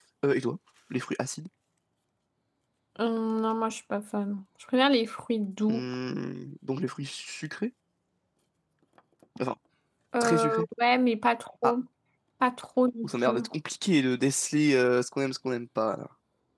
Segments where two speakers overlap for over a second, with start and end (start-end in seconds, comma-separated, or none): none